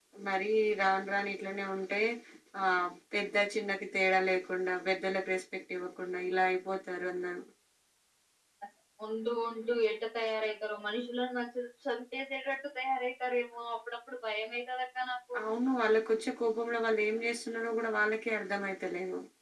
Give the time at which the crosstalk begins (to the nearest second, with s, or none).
none